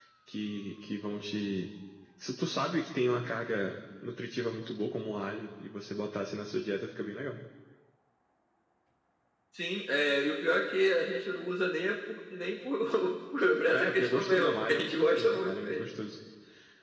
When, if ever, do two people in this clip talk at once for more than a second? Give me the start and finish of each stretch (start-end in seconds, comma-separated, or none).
13.7-15.8